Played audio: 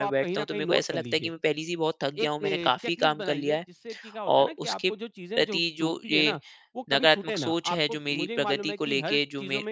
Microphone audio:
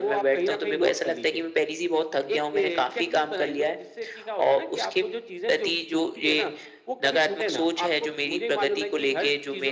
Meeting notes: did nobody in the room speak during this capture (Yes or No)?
Yes